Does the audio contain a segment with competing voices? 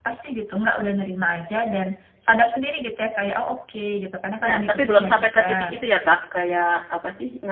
Yes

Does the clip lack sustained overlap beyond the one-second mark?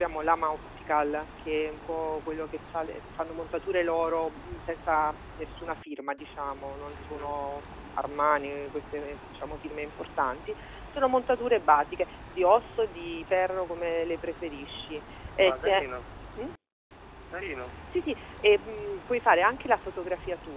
Yes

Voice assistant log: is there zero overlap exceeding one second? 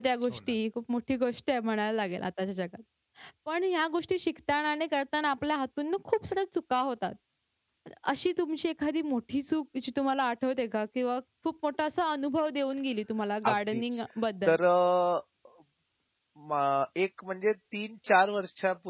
Yes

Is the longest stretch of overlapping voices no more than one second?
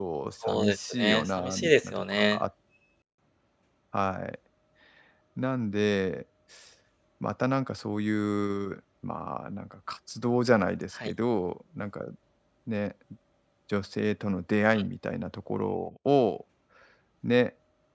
No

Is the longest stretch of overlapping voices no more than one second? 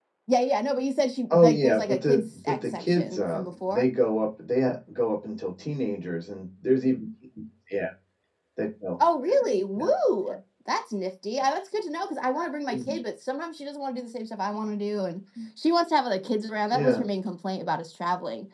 No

